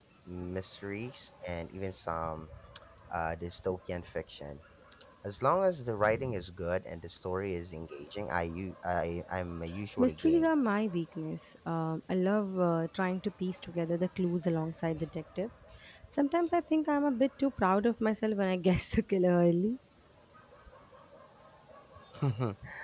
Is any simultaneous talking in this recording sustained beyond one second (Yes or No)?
No